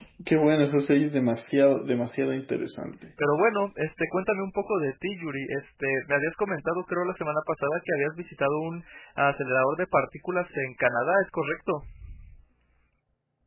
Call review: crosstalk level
none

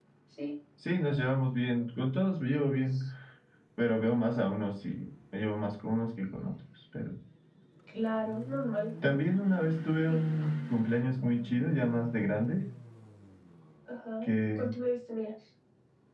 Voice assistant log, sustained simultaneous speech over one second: none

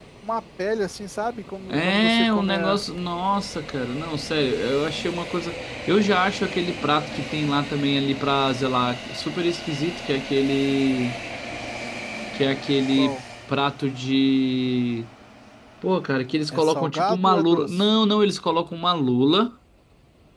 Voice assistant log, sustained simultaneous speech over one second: present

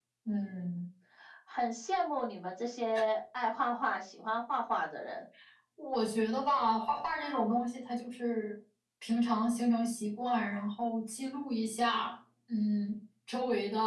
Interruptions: none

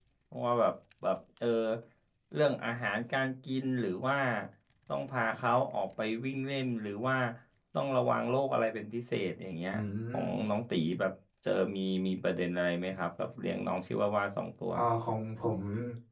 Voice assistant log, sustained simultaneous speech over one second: none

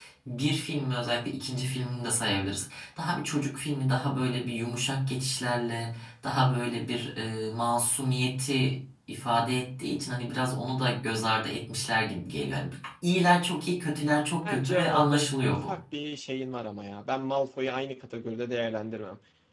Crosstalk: present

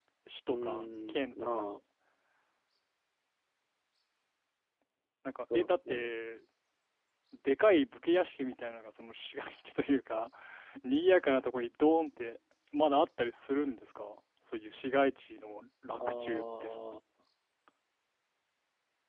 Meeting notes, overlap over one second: present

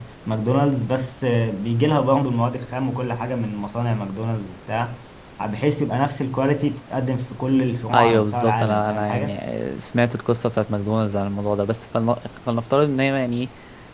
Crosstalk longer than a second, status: present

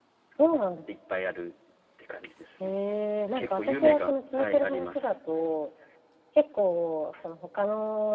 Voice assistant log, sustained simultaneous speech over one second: present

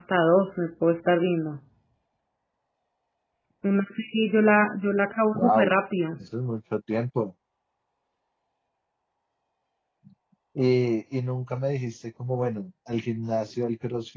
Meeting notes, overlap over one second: none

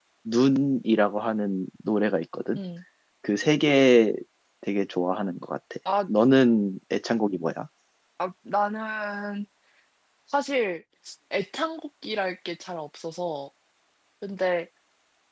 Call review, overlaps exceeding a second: none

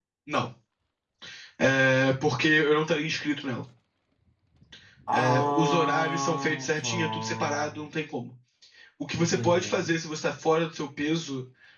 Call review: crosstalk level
present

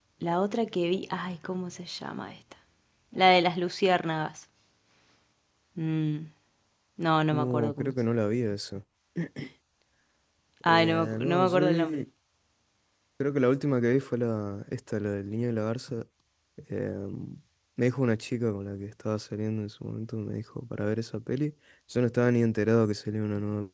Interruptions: present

